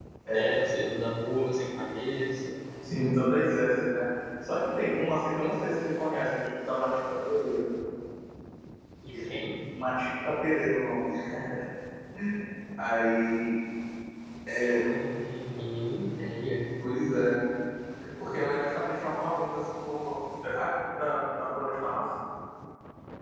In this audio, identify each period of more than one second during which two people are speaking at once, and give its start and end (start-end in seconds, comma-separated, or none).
none